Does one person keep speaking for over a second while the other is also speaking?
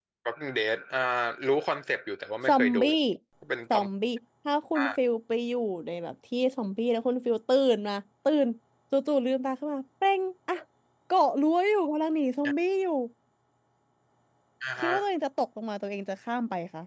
No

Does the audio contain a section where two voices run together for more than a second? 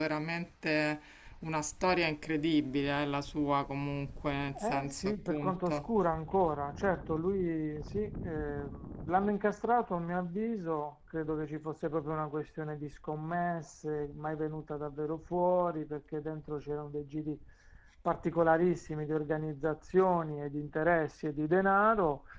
Yes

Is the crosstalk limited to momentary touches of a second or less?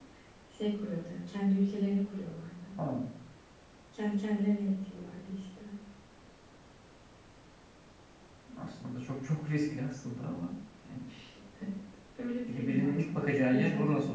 No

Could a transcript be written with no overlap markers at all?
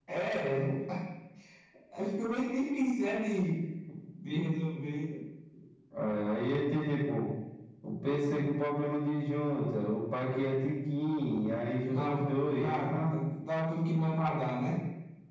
No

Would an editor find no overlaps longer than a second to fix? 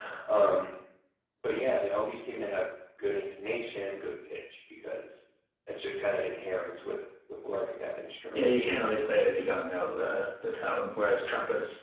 Yes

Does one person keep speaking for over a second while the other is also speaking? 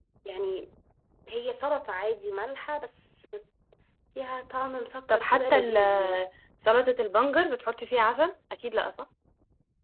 Yes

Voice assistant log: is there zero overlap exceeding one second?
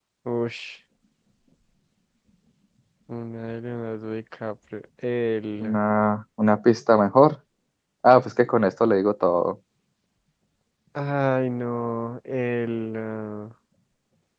Yes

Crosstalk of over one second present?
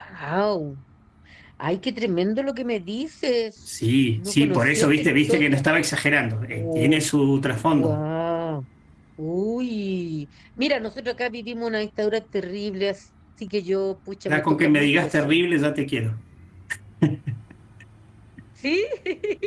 Yes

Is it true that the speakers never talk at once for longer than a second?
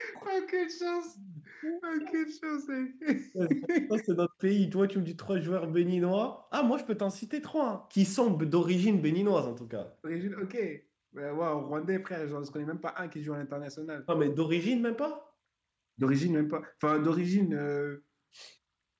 Yes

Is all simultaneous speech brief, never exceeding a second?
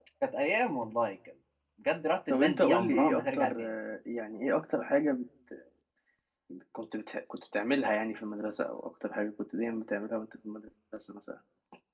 No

